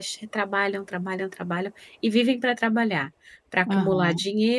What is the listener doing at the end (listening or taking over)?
listening